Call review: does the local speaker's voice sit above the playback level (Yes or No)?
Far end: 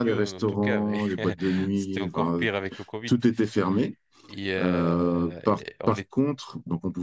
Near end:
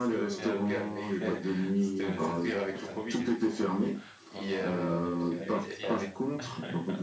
No